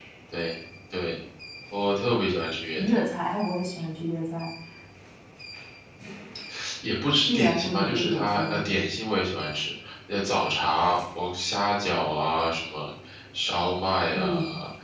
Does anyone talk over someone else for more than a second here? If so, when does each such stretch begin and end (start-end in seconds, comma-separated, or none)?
7.2-8.6